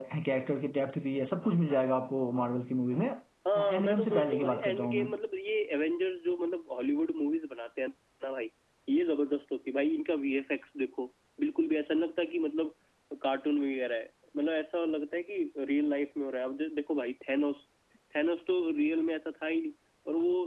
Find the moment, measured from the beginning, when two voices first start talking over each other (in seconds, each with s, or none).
3.5 s